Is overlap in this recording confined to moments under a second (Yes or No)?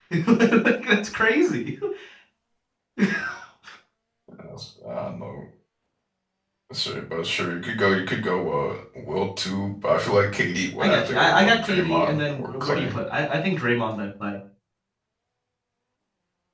No